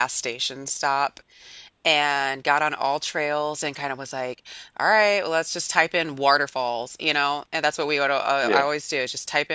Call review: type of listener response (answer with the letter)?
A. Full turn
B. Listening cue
B